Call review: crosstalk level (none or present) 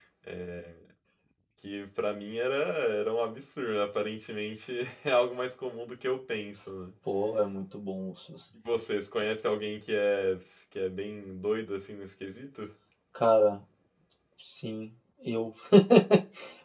none